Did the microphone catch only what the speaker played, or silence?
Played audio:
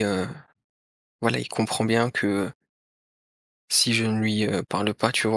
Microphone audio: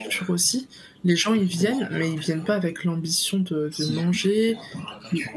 No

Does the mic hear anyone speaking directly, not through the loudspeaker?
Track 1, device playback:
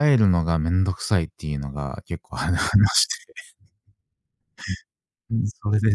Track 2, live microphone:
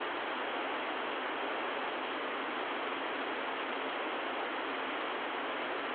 No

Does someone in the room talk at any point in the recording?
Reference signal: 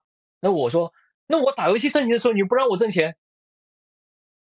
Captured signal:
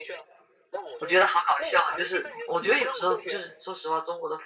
Yes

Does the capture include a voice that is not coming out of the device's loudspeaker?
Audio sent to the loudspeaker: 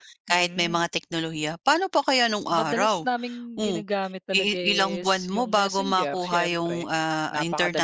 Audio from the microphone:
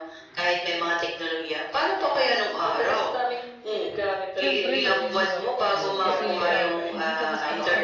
Yes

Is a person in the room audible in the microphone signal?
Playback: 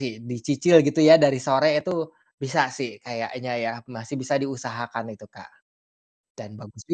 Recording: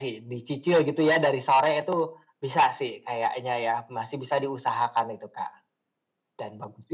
No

